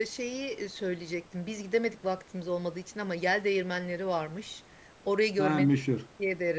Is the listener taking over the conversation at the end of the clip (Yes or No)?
No